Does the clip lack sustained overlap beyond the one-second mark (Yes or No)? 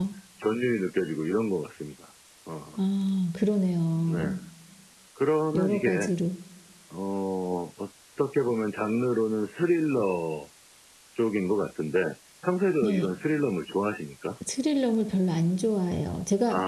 Yes